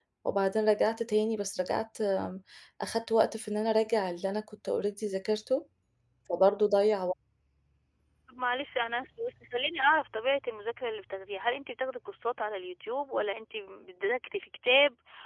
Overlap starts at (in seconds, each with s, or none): none